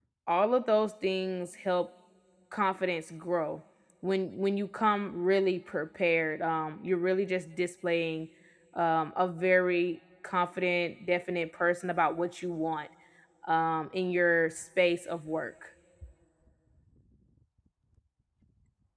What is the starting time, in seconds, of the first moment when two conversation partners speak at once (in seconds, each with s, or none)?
none